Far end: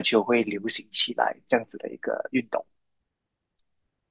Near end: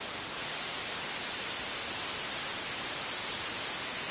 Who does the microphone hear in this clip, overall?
neither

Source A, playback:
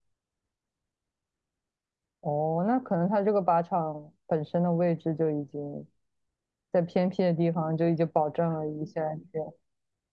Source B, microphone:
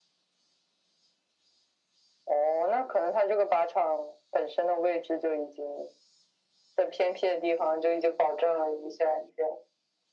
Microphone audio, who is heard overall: echo only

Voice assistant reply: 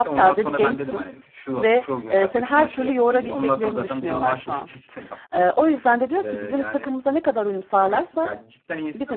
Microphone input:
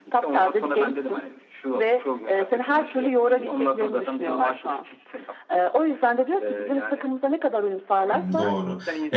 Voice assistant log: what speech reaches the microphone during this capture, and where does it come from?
both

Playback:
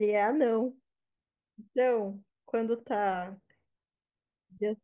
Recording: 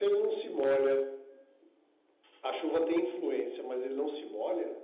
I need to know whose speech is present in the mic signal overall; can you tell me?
user only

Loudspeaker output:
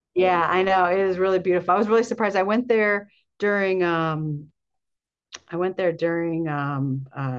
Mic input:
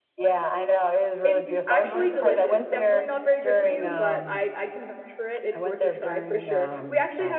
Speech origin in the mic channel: both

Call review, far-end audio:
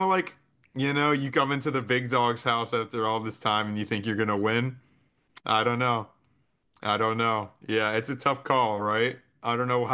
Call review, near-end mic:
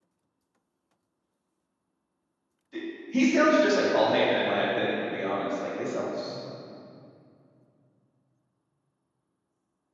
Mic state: user only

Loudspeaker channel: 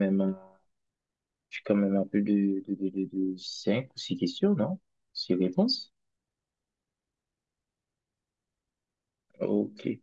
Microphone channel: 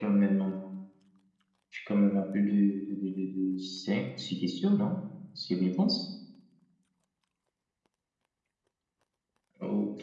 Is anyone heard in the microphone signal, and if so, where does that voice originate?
echo only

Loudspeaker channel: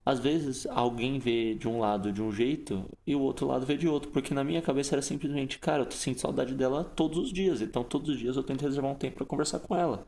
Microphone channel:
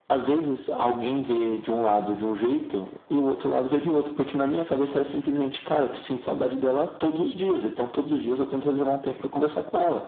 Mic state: echo only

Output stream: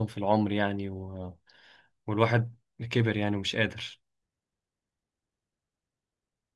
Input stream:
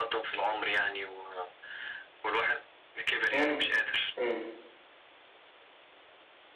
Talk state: both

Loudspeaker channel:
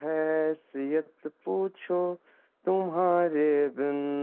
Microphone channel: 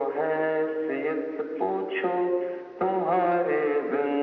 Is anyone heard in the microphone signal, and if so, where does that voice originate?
echo only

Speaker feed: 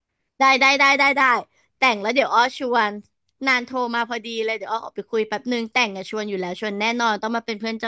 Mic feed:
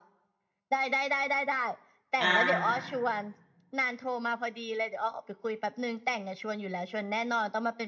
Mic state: both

